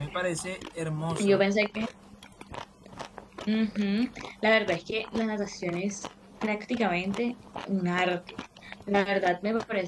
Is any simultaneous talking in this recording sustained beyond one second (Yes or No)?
No